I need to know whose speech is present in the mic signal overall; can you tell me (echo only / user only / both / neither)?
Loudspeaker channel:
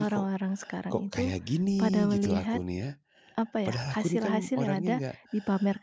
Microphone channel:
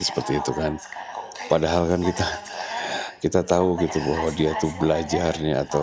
both